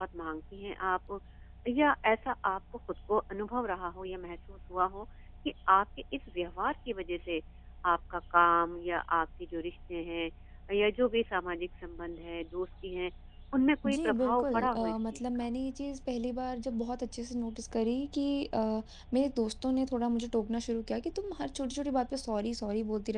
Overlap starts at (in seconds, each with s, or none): 13.8 s